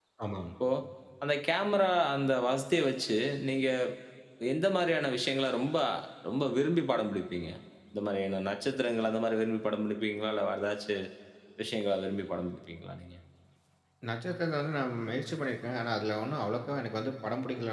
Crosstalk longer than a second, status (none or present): none